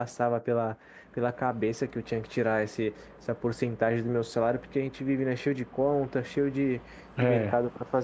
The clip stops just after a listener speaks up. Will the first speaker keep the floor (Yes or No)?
Yes